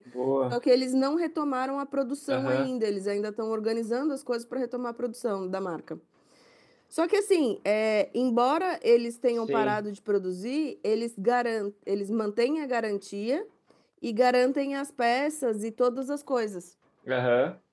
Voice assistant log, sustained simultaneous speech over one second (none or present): none